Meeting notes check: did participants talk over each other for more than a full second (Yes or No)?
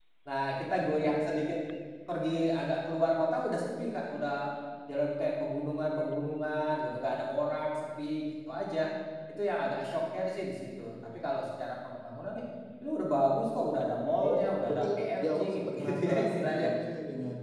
Yes